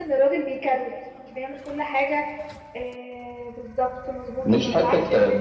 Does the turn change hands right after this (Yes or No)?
No